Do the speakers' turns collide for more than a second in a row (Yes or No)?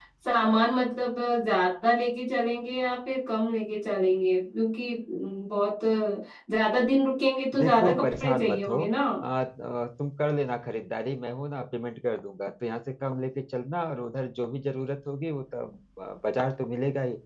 Yes